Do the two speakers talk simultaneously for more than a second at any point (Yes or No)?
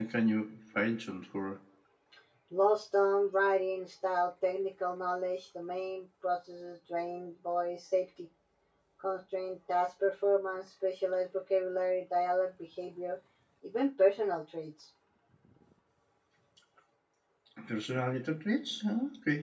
No